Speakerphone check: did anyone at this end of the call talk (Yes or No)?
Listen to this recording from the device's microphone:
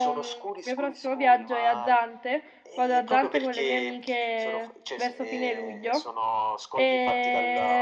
Yes